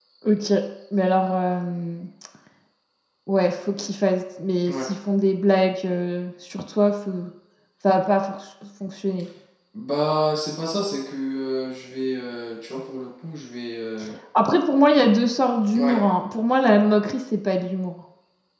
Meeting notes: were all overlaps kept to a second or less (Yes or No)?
Yes